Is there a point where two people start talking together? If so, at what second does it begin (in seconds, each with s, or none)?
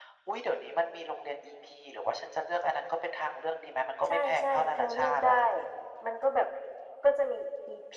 4.1 s